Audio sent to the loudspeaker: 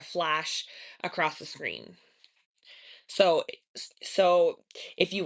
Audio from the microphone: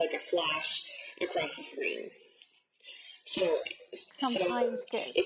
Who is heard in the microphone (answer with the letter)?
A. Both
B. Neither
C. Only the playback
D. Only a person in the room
A